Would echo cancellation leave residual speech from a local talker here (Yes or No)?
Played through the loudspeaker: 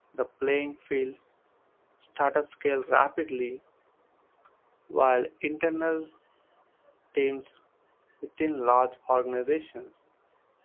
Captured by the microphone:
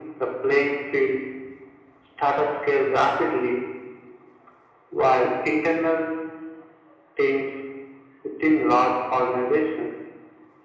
No